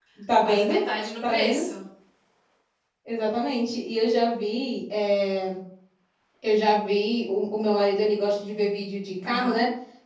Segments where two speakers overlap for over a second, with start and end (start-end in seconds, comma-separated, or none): none